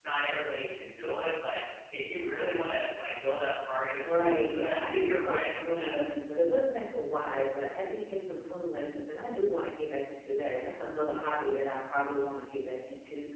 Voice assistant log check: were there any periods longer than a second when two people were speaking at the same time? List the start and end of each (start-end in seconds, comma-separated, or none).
4.0-6.0